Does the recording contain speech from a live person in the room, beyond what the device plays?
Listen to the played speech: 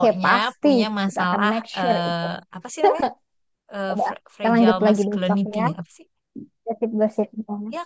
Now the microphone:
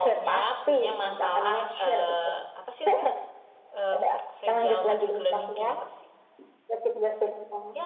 No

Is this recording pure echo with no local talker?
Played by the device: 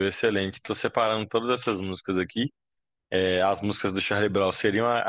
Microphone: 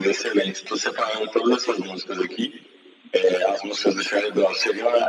Yes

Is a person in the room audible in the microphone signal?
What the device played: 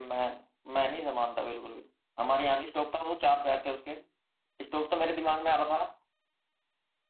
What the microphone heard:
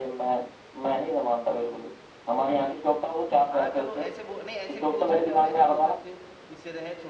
Yes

